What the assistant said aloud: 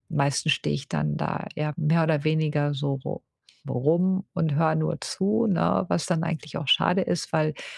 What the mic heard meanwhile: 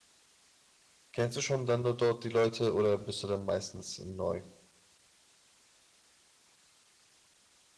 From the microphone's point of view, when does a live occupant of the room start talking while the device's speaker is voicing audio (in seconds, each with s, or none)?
1.1 s